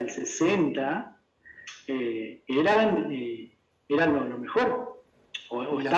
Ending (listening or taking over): listening